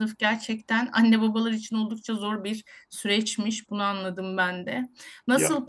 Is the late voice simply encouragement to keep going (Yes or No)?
Yes